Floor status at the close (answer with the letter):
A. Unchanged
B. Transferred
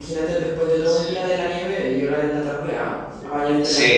B